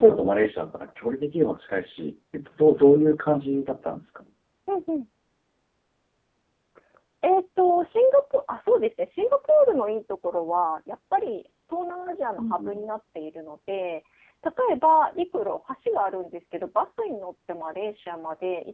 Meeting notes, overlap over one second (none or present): none